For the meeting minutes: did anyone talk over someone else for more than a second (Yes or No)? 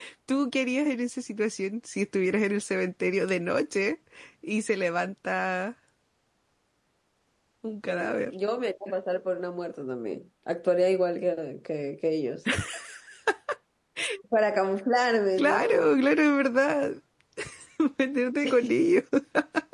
No